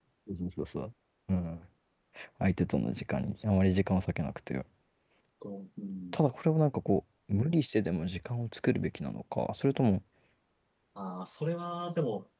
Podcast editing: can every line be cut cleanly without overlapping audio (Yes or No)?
Yes